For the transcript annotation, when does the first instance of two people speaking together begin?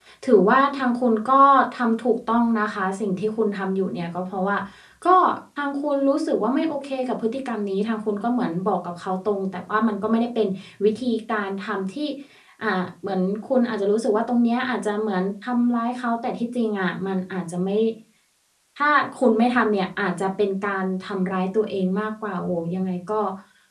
none

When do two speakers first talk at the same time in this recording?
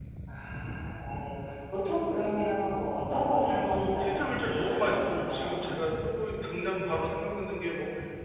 3.6 s

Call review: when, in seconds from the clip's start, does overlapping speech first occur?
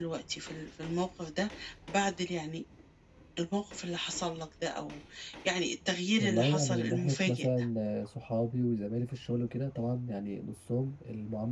6.2 s

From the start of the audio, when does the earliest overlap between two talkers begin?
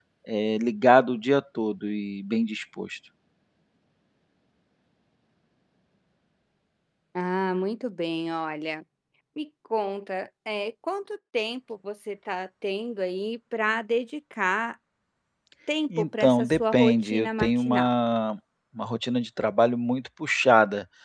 16.0 s

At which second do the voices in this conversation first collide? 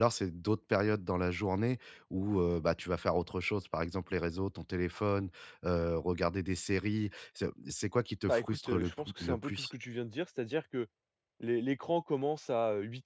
8.3 s

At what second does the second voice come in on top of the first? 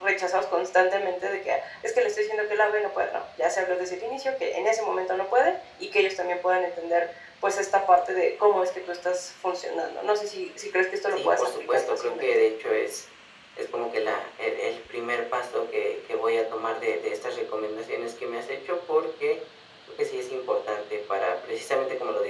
11.1 s

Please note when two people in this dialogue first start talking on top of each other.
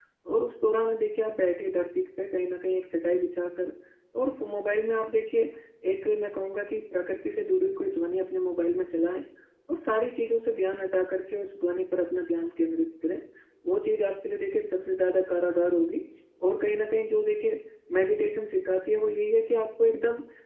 none

